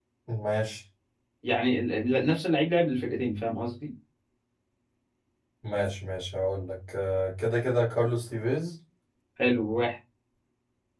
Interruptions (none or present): none